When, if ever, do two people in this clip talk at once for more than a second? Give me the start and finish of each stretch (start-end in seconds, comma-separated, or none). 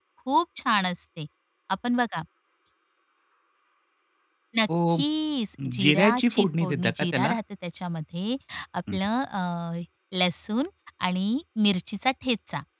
5.8-7.3